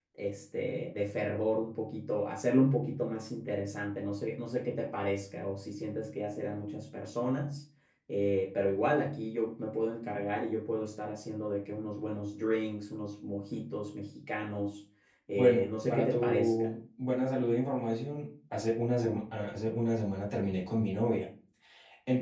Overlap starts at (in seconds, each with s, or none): 15.3 s